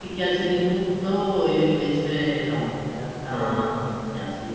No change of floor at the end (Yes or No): Yes